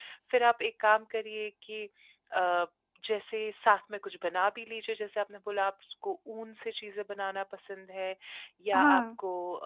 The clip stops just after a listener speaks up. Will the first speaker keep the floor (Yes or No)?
Yes